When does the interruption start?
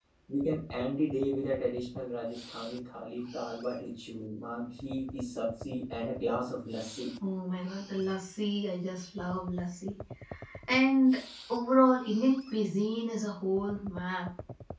none

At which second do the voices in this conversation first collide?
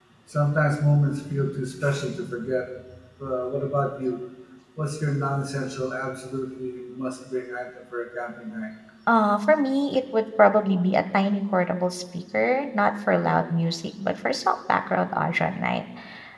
none

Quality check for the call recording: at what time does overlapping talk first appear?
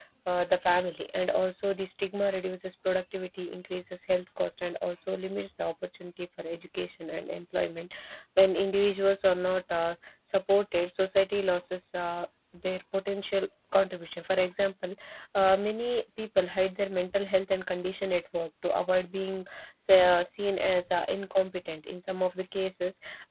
none

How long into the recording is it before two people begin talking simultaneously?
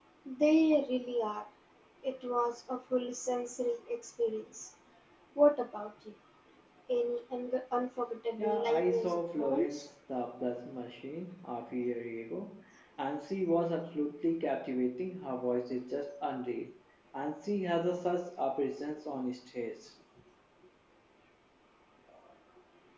8.4 s

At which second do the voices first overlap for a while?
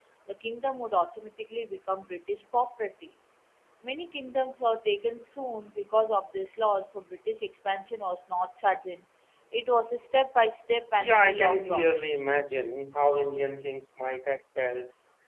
11.0 s

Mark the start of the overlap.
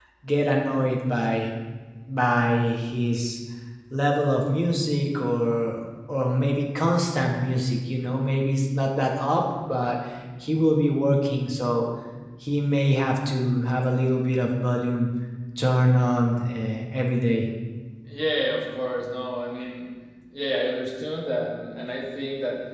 none

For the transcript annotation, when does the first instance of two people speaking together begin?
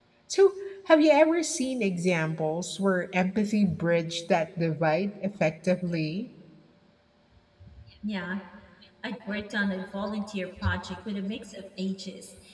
none

